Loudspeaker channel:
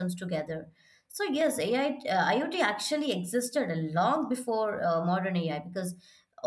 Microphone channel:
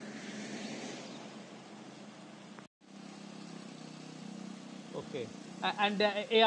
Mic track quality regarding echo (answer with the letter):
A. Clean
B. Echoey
A